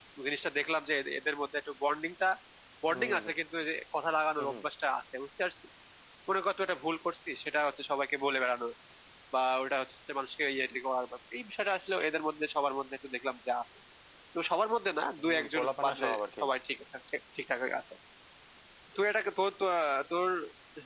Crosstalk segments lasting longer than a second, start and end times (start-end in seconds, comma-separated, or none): 15.2-16.4